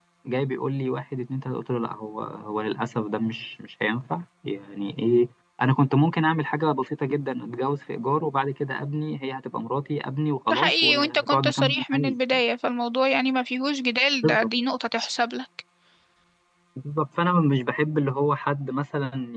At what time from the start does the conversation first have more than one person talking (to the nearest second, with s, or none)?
11 s